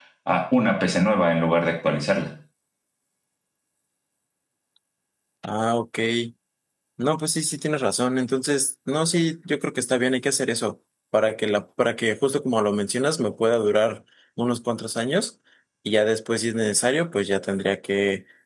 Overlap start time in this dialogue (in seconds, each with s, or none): none